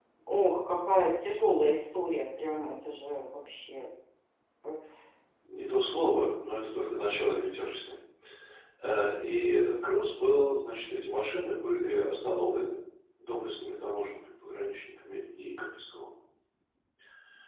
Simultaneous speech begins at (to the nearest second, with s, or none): none